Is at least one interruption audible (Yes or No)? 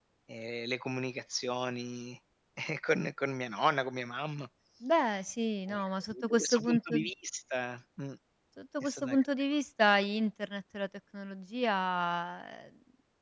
Yes